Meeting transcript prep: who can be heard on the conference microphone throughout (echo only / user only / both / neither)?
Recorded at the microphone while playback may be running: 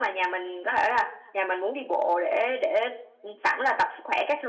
echo only